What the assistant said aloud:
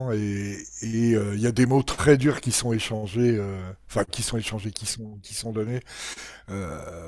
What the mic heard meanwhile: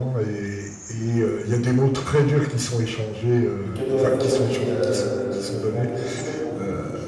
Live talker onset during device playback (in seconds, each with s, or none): 3.6 s